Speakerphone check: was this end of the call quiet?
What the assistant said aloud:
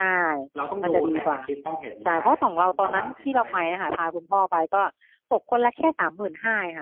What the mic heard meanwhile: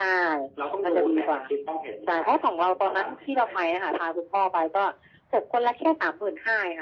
Yes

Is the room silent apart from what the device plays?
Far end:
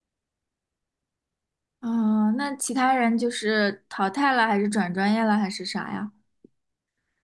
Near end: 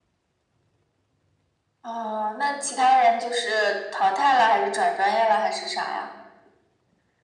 Yes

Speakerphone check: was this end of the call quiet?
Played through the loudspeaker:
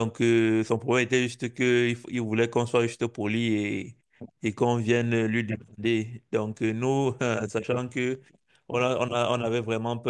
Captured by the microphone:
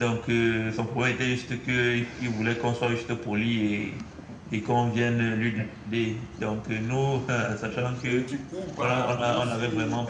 No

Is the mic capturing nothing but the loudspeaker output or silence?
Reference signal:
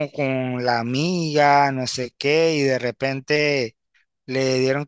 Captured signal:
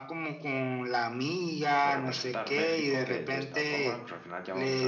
No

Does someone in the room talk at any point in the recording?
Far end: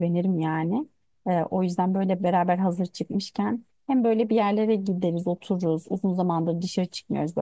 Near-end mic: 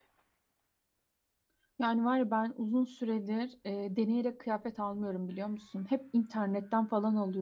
Yes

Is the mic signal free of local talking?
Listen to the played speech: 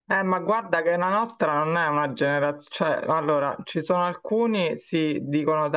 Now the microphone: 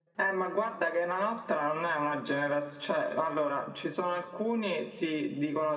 Yes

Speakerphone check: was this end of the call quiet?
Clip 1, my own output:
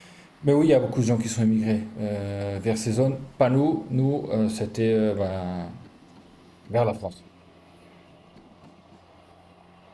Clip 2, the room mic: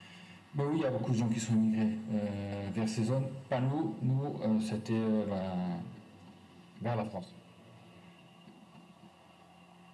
Yes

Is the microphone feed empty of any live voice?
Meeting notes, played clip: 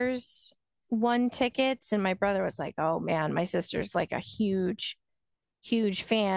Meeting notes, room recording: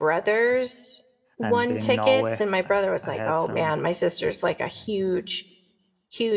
No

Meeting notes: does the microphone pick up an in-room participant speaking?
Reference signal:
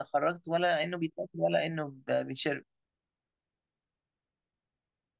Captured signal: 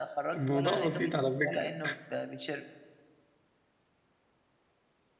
Yes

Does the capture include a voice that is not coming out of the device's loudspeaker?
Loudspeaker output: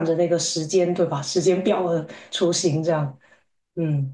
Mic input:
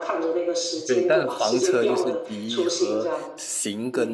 Yes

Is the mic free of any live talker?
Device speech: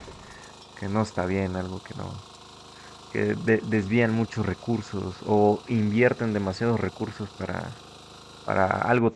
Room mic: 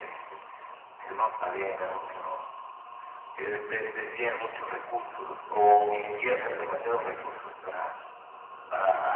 Yes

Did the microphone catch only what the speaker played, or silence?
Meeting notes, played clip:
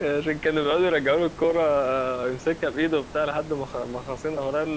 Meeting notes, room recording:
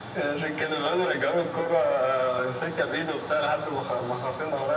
Yes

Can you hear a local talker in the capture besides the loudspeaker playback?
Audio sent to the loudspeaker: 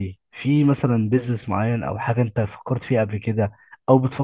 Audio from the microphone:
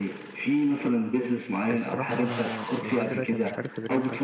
Yes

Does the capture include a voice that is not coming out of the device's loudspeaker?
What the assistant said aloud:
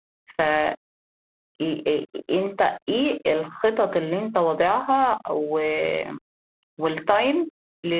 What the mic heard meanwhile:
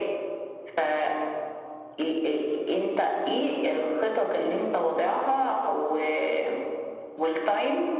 No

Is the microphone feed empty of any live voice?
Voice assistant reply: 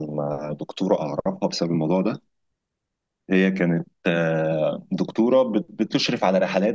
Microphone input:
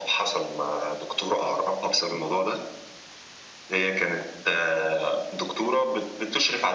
Yes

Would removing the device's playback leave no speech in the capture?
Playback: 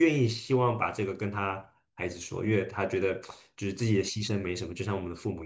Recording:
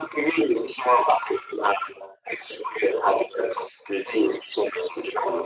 Yes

